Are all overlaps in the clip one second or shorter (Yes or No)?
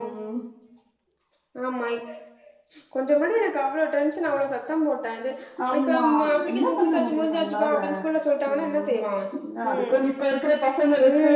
No